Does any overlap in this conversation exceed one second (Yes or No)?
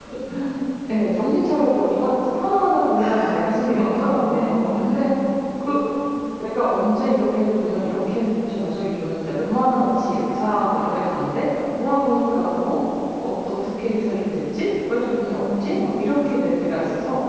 Yes